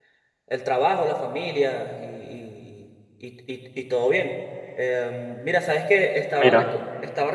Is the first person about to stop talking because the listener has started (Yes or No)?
No